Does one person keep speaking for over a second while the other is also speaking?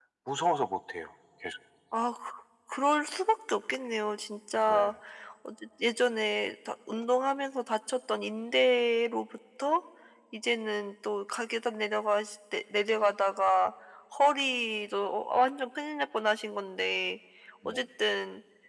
No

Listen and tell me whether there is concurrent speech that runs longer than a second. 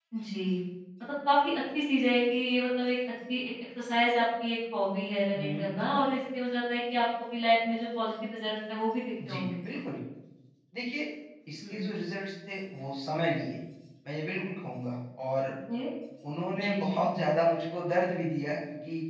No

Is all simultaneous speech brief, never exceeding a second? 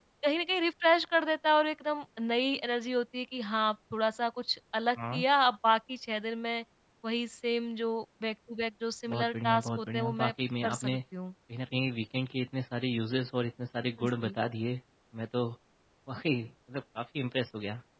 No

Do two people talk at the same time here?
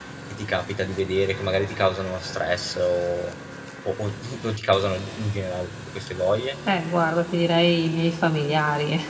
No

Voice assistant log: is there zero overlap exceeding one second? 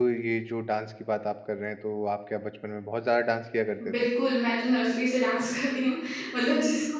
Yes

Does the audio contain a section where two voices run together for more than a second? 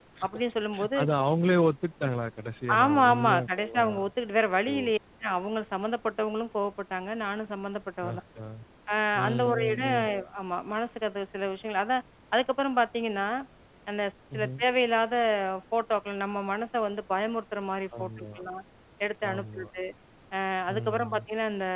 Yes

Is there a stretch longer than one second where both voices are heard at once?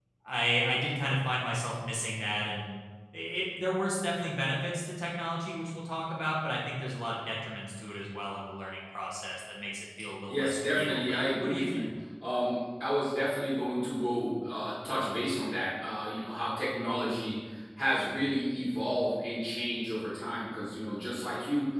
Yes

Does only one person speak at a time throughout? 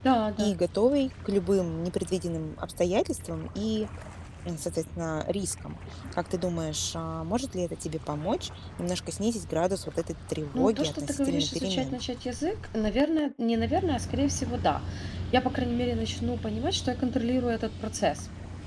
No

